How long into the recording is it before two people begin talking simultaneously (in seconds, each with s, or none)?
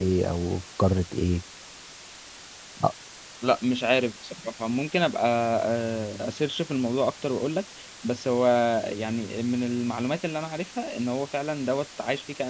none